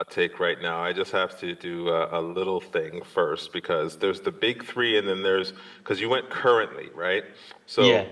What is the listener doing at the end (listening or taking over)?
listening